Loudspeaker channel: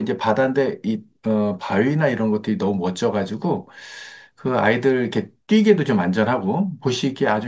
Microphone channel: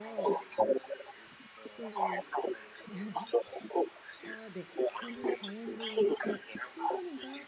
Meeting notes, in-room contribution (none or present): present